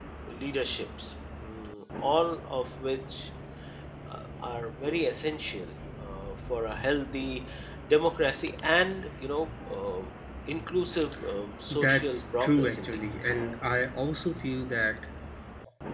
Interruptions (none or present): present